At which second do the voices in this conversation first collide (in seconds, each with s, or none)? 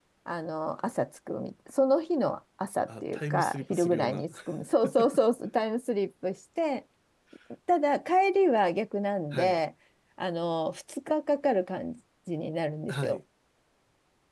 2.9 s